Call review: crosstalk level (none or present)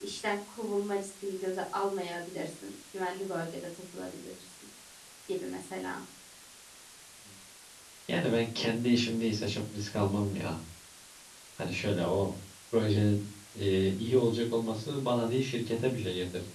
none